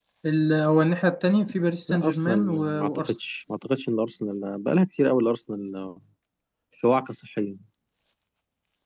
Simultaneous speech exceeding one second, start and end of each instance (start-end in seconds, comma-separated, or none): 1.9-3.1